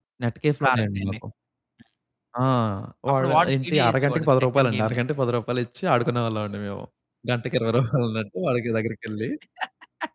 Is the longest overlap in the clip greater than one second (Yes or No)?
Yes